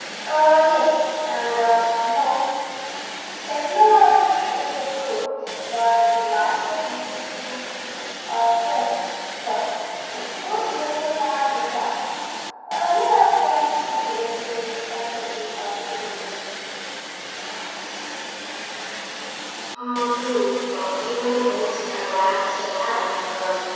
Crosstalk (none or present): none